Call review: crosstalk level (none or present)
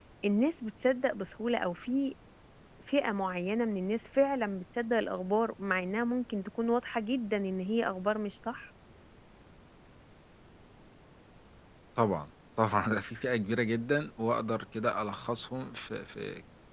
none